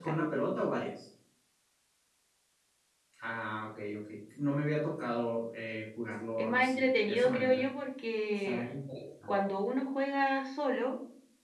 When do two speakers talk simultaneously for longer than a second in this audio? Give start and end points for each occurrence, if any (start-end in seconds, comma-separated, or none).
6.4-7.6